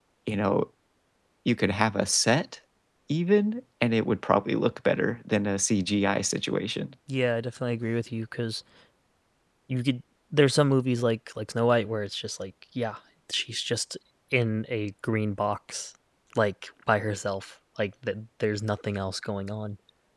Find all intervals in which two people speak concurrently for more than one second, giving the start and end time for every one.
none

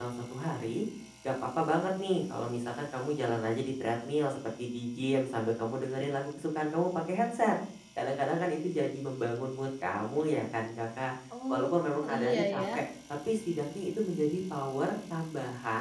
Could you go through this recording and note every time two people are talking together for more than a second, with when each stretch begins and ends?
11.5-12.8

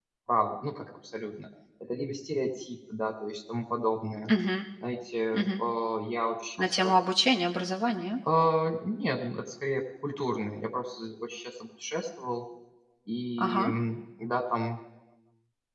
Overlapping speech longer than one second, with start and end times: none

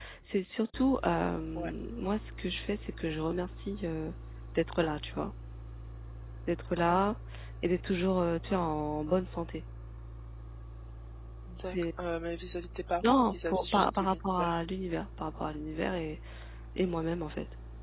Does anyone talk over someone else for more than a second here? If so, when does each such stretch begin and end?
13.1-14.6

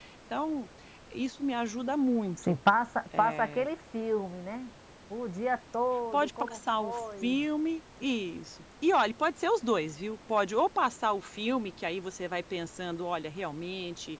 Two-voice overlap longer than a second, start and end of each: 6.1-7.4

